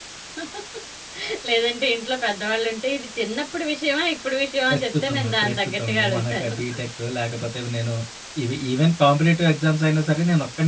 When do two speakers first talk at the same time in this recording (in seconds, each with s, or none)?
4.7 s